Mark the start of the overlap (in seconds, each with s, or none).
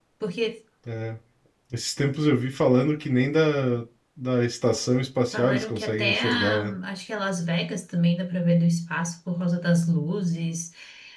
5.3 s